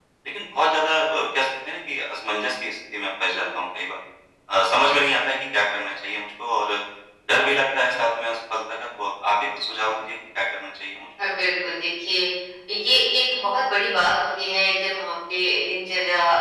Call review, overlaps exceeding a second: none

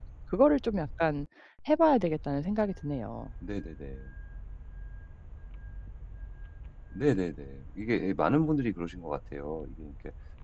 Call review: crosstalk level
none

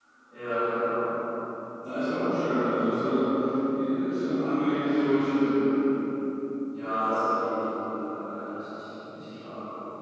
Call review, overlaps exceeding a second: none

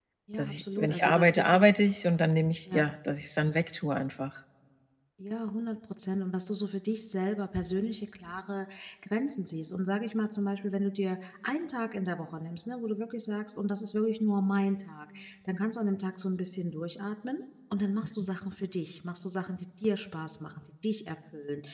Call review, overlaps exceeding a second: present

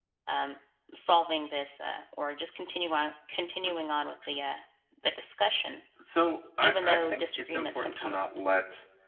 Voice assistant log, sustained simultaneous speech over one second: present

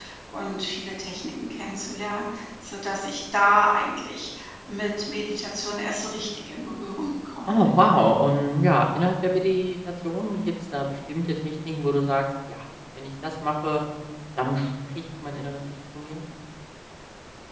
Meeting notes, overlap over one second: none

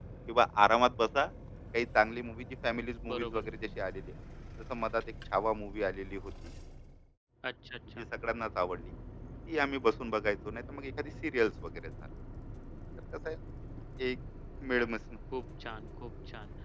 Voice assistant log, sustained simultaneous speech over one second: none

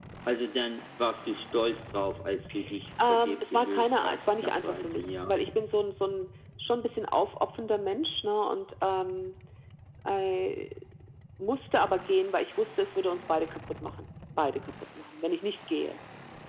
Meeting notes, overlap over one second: present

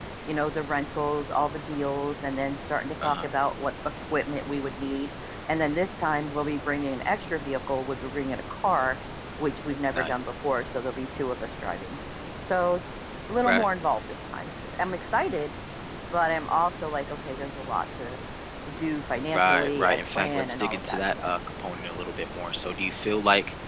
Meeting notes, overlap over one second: present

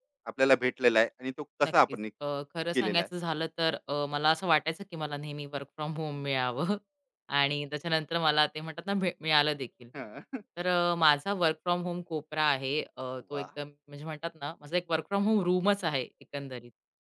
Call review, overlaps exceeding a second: none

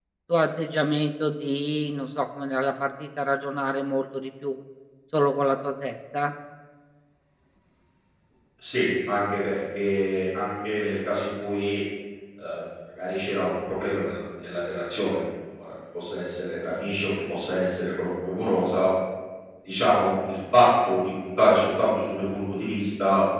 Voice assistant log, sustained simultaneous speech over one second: none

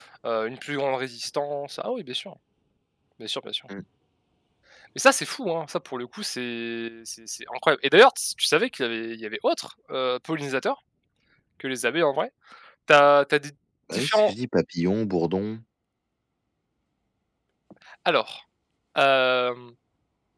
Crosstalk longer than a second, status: none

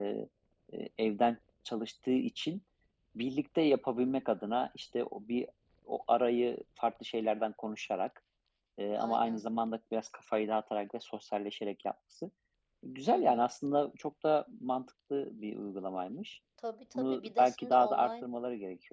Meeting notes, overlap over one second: present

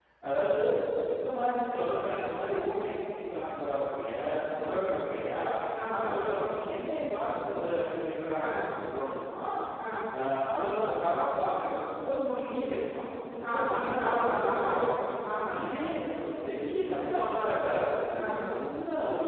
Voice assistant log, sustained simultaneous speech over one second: present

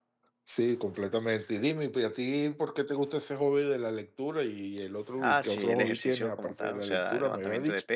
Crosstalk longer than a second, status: present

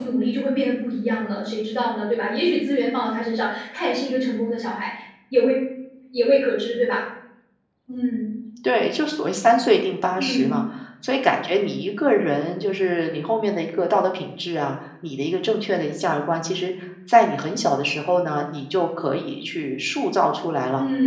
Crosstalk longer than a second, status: none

